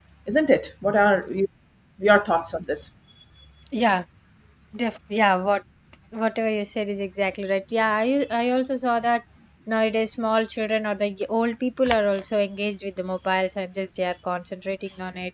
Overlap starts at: none

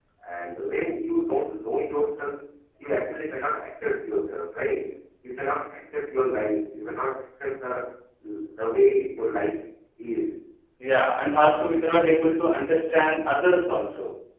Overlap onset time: none

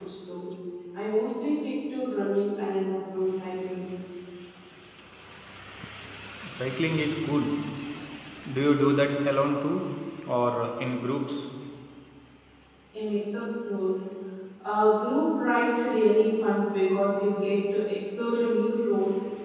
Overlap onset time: none

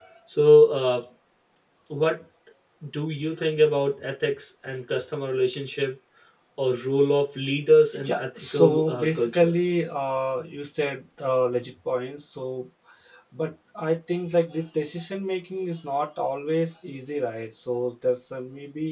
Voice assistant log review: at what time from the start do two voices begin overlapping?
7.9 s

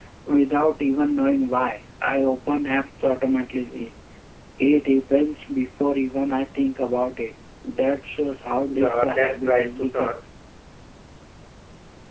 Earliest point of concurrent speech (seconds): 8.7 s

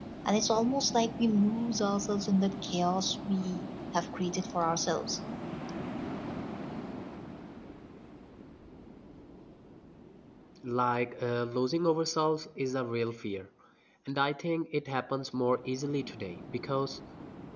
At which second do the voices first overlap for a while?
none

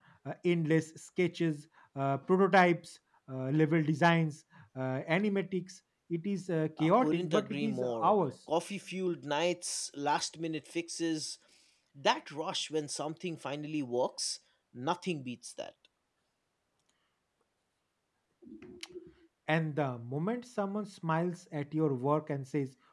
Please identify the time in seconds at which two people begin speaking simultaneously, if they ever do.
6.8 s

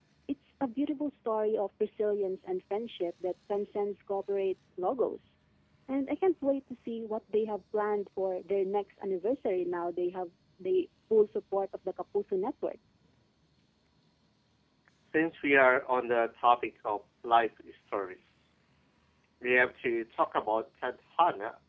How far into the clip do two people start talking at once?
none

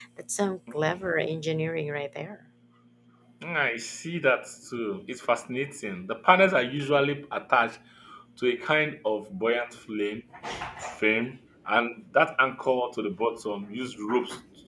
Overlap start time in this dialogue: none

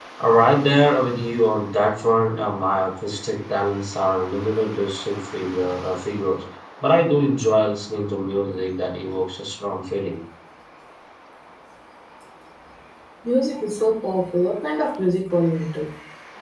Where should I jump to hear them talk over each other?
none

